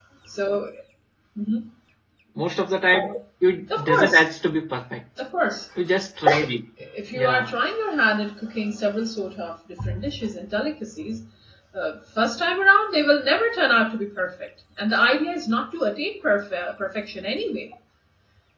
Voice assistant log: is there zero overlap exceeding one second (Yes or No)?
Yes